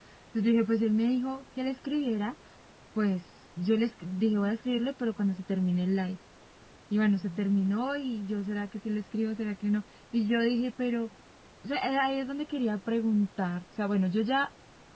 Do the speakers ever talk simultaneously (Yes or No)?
No